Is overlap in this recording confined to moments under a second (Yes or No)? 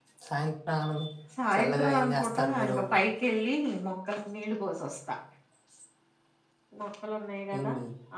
No